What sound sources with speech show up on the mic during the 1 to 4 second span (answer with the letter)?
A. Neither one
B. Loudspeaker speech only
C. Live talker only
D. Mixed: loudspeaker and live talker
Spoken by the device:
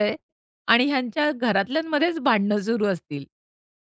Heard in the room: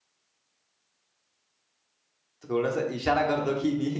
C